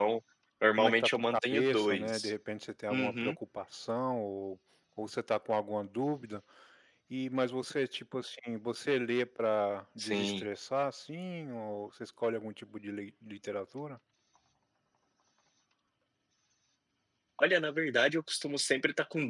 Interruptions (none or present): present